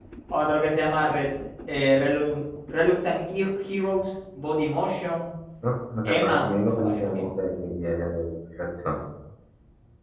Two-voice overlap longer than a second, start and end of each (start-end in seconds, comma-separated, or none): 6.0-7.2